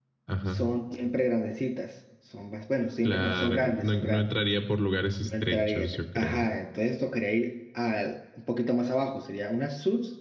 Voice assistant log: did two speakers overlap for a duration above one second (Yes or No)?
Yes